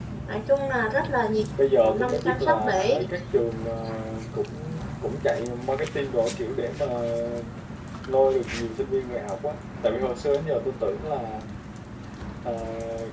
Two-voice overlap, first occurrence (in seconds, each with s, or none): 1.8 s